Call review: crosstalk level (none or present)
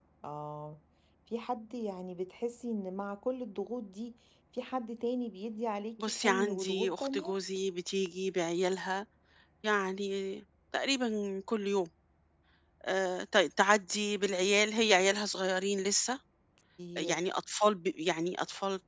present